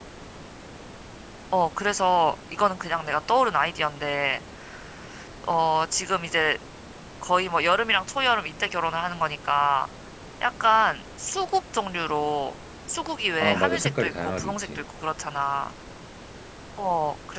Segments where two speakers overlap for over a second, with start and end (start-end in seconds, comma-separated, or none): 13.4-14.8